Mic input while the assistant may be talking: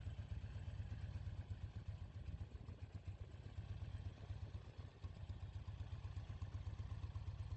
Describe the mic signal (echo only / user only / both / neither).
neither